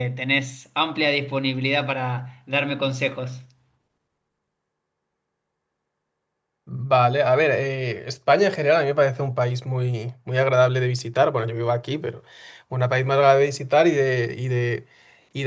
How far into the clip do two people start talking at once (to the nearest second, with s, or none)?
none